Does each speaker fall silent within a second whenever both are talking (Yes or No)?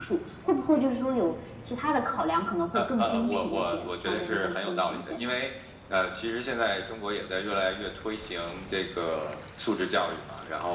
No